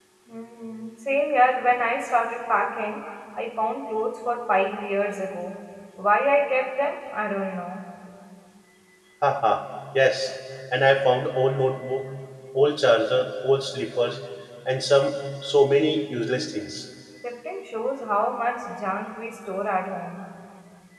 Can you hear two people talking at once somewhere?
No

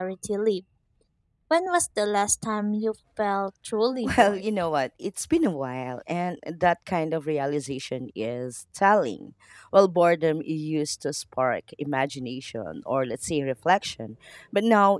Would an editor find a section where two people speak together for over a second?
No

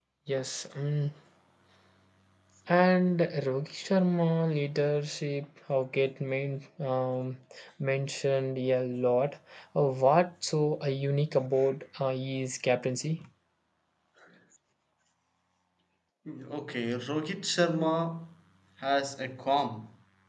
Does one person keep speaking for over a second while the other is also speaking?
No

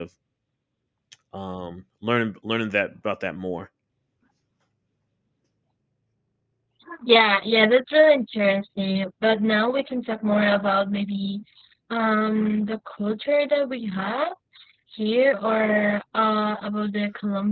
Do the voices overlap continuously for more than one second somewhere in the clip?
No

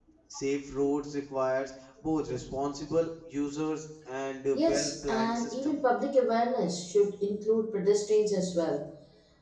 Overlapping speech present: Yes, from 4.5 s

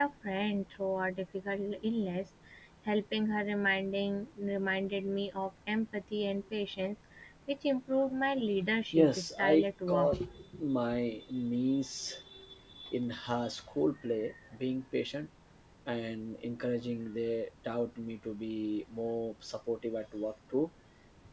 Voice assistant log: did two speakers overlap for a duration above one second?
Yes, from 8.9 s

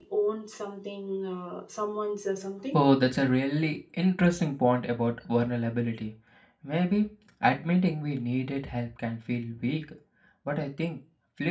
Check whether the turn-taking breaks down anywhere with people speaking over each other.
No

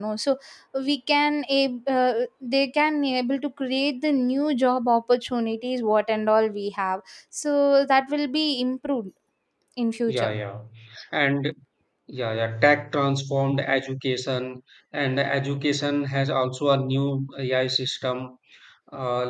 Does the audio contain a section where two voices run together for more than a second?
No

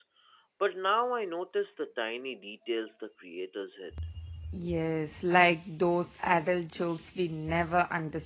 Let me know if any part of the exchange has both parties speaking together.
No

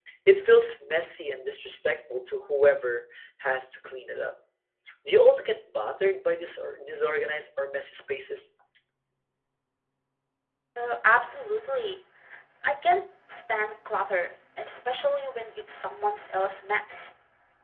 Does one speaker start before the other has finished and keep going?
No

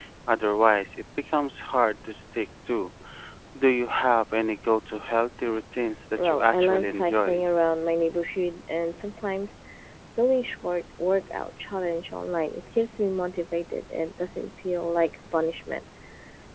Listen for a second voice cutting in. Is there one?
Yes, from 6.2 s

